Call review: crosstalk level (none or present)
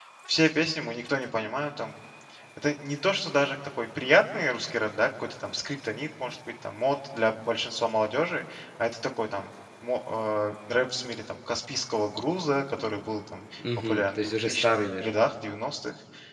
present